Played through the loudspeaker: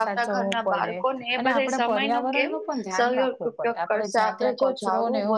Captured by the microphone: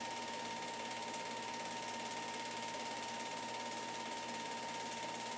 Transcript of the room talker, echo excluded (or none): none